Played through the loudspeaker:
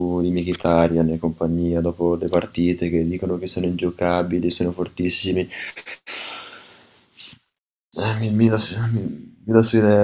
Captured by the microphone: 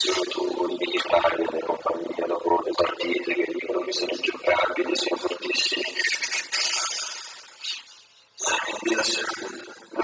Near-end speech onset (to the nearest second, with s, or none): none